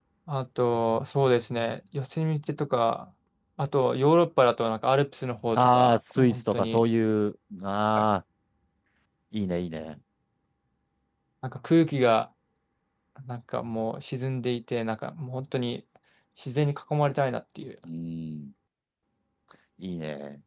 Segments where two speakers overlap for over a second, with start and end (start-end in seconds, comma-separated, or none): 5.5-6.8